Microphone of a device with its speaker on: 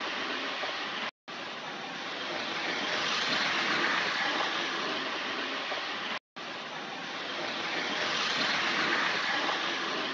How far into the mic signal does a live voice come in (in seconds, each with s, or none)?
none